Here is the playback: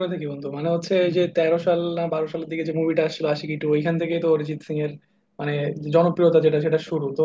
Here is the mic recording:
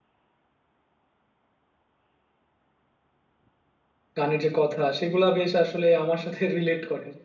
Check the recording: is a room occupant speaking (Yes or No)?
Yes